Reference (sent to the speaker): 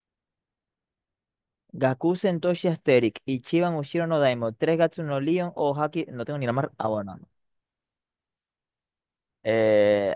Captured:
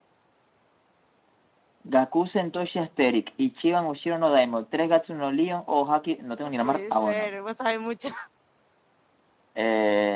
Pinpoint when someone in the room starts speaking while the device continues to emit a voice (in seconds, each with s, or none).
6.4 s